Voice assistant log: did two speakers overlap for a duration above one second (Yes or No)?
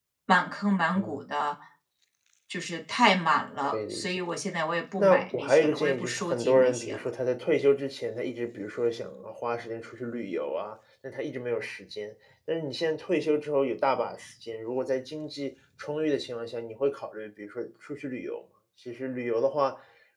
Yes